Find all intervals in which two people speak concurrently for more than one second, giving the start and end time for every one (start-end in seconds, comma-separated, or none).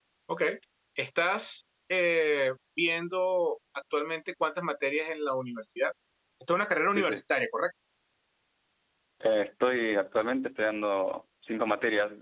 none